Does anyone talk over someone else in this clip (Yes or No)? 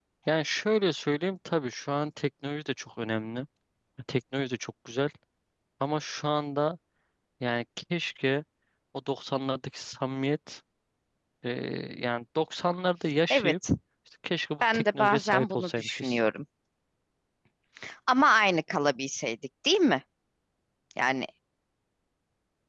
Yes